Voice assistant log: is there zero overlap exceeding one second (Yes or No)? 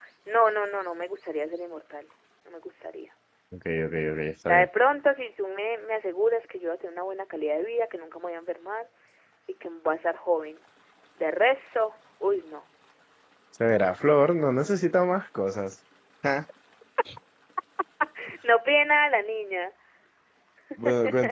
Yes